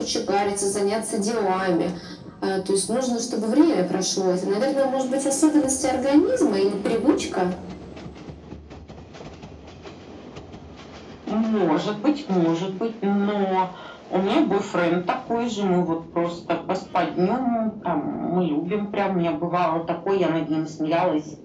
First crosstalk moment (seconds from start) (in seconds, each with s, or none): none